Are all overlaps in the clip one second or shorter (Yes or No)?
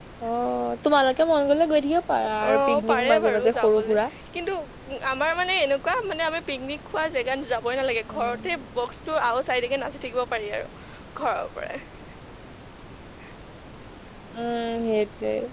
No